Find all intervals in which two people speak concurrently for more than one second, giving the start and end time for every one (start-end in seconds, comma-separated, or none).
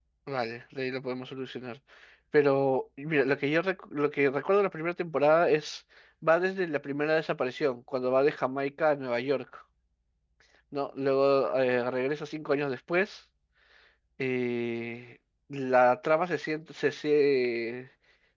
none